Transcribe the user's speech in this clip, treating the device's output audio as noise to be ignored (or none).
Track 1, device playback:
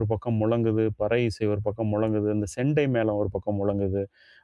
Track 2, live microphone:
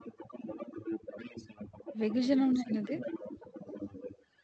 வெகுஜனம்னா என்னது?